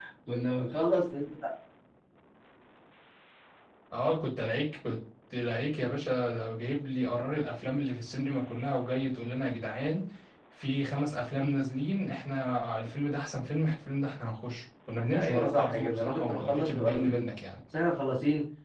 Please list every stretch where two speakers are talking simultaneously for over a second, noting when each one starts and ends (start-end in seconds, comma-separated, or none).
15.1-17.2